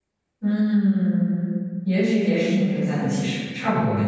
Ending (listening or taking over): taking over